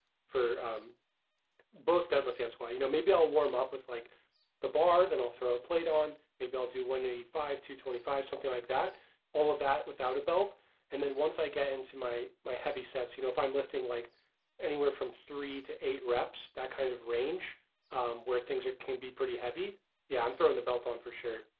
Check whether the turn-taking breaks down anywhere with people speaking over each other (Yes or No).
No